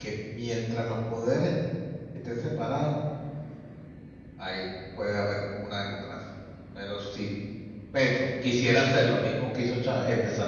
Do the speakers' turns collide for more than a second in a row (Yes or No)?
No